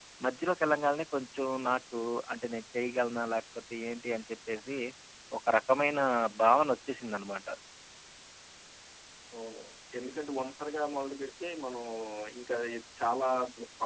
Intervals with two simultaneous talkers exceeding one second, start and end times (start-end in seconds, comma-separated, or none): none